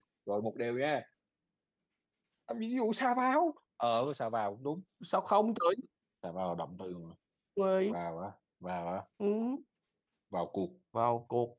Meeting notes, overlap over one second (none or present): none